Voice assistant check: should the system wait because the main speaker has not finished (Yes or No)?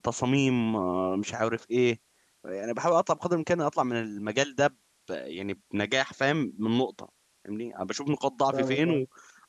Yes